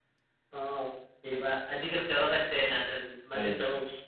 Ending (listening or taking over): listening